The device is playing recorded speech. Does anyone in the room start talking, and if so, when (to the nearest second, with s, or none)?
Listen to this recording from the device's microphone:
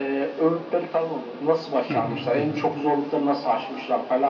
2 s